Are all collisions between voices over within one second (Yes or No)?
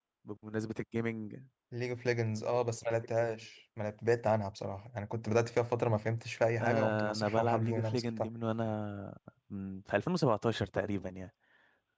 No